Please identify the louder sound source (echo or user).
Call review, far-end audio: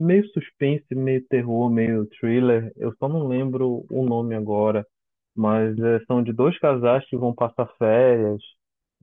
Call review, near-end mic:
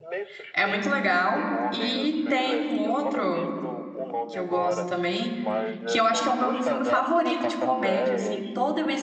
user